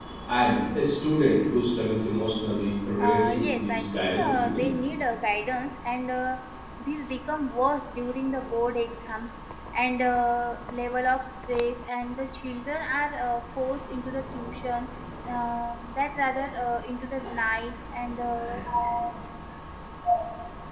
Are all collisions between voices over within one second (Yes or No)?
No